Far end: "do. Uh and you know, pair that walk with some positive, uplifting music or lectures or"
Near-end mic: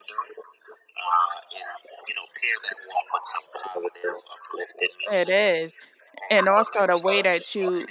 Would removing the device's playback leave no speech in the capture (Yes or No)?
No